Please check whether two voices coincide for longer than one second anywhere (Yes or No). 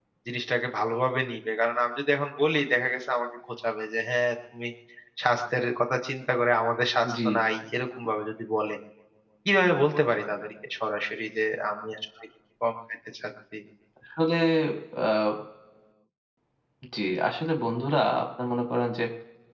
No